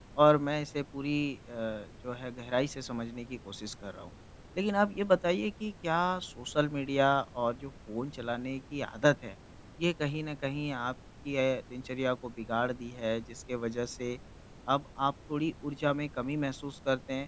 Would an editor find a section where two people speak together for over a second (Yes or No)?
No